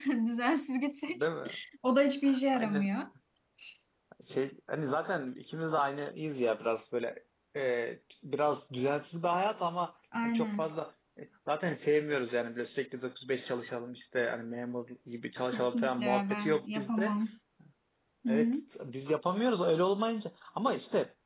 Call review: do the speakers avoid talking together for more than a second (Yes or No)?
No